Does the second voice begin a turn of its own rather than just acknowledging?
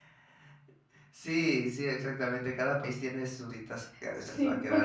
Yes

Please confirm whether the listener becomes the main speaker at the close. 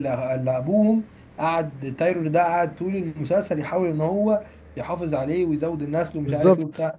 Yes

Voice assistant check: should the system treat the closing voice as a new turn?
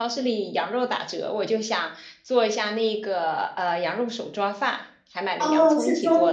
Yes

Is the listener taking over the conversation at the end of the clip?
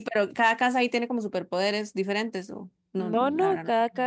Yes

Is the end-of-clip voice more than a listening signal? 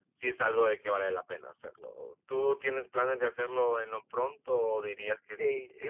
Yes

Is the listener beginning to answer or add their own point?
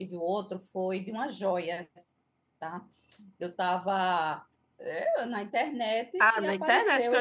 Yes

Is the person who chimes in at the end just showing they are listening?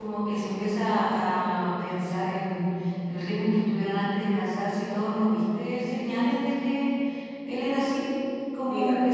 Yes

